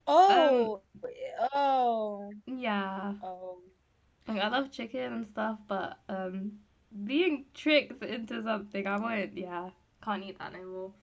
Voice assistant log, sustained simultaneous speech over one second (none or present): none